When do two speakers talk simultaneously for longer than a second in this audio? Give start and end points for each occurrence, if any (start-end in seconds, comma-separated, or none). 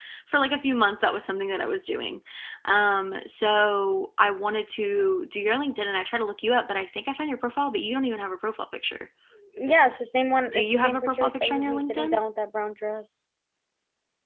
10.5-12.2